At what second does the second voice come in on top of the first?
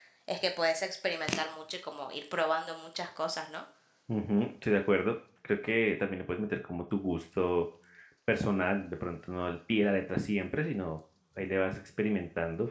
none

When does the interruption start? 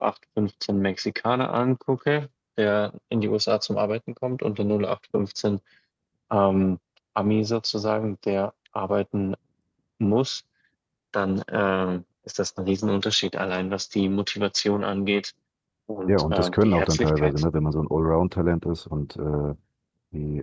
16.1 s

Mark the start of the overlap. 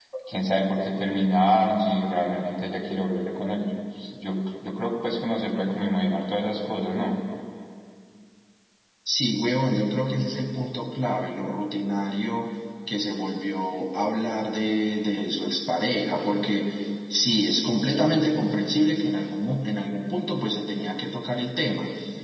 none

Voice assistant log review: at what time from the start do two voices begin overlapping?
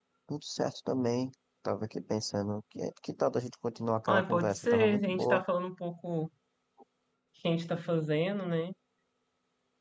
4.1 s

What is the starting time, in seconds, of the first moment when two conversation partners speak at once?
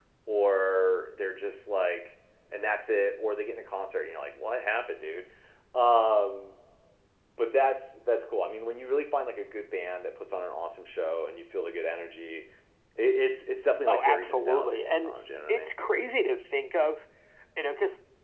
13.9 s

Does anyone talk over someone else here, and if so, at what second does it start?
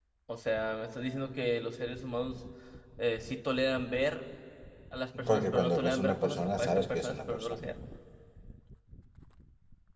5.3 s

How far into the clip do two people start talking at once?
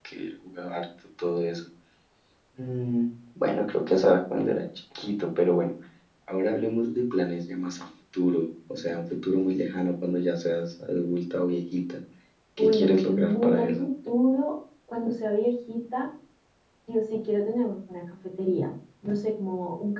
12.6 s

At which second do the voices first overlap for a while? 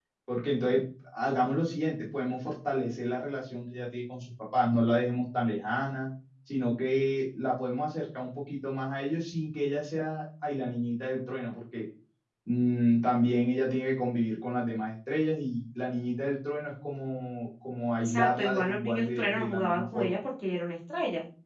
18.1 s

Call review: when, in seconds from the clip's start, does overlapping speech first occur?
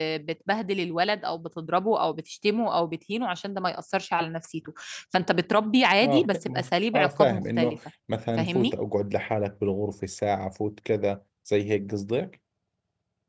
6.0 s

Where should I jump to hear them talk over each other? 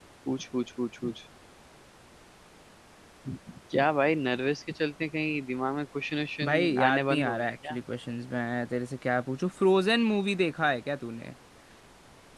6.4 s

